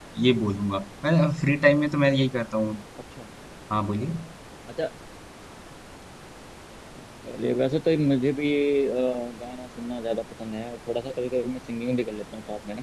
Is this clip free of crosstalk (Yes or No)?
Yes